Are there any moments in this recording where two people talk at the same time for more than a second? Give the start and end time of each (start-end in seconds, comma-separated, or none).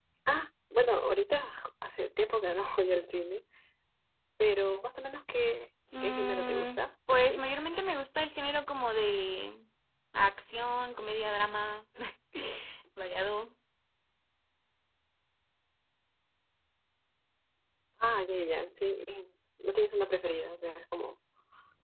6.0-7.4